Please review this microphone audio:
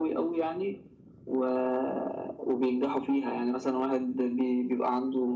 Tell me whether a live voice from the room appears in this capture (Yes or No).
No